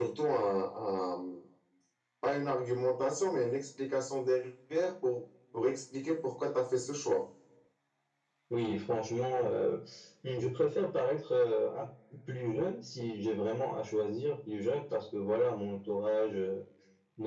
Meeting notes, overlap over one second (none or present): none